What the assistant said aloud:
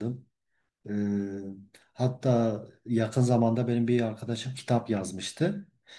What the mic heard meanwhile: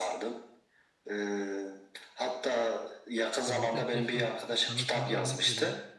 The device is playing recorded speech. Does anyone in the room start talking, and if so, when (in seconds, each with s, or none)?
3.5 s